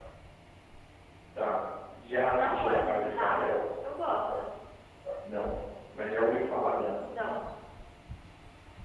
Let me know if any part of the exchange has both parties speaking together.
Yes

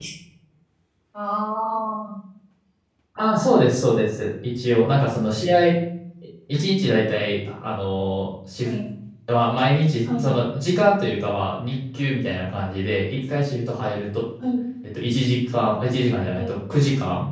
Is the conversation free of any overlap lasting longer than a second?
Yes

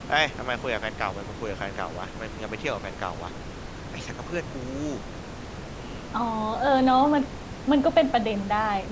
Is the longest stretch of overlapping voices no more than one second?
Yes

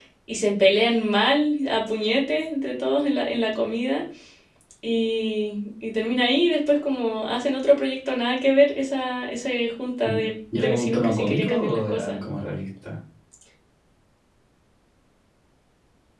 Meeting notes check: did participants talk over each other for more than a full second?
Yes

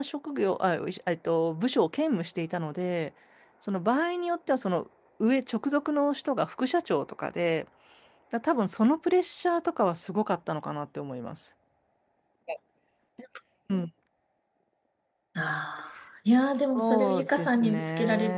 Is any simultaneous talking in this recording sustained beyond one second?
Yes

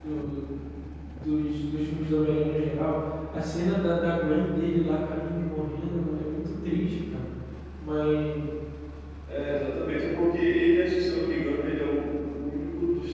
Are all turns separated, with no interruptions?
Yes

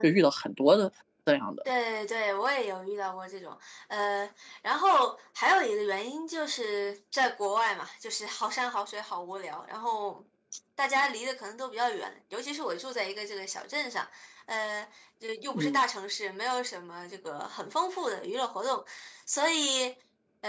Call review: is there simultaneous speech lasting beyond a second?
No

